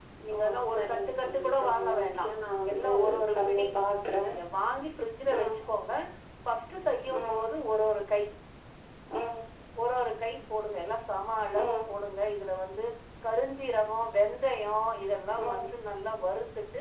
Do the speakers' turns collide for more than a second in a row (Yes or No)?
Yes